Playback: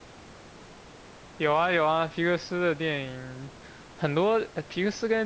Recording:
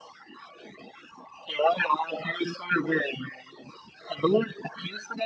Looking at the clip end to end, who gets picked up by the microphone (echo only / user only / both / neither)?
echo only